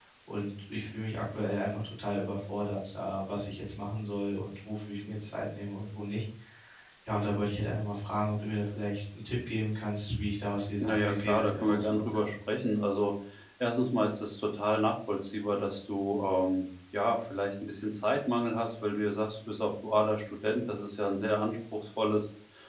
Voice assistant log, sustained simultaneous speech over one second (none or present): present